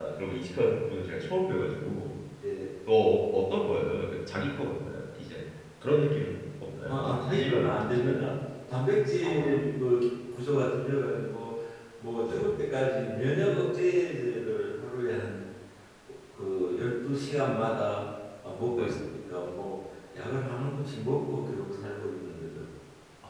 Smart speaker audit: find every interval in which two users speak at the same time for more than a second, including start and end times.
6.9-8.2

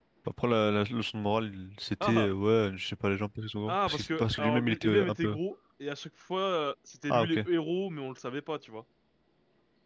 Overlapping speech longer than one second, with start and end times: 3.7-5.4

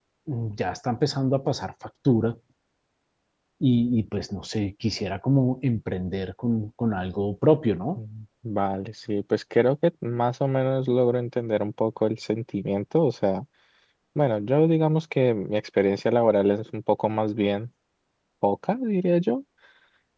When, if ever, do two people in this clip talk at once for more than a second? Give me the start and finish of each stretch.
none

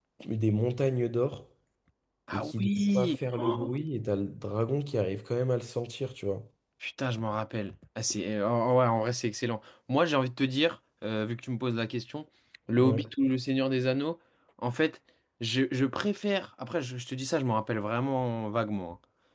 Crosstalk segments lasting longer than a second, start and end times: 2.3-3.7

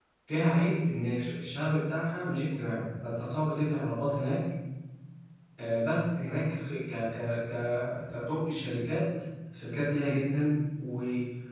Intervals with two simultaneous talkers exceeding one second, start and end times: none

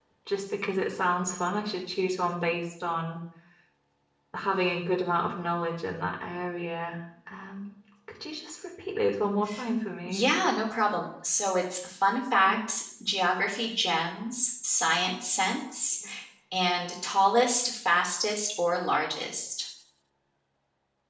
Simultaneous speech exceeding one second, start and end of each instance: none

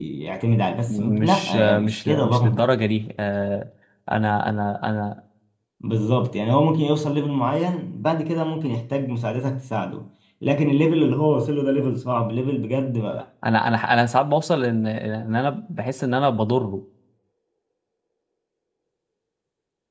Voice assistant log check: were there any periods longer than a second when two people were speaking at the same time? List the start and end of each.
0.9-2.6

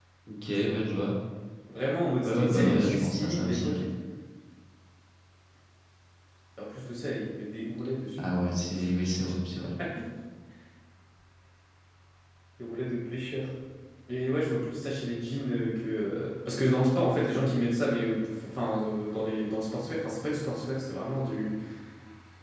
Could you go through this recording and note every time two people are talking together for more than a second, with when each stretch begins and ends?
2.2-3.8

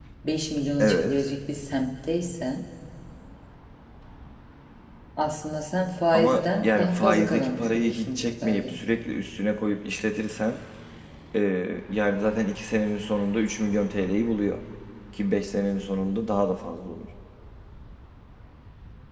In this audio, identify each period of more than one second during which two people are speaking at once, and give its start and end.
6.1-8.8

